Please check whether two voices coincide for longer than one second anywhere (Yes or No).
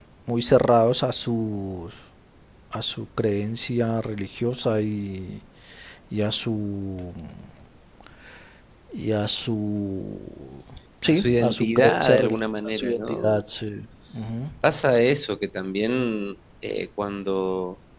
Yes